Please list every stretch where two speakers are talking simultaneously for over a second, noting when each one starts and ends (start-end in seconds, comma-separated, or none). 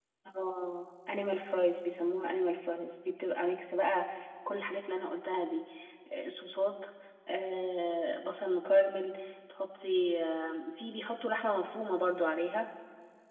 none